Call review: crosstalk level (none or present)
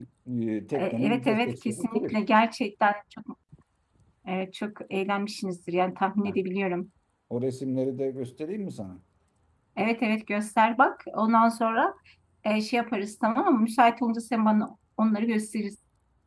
present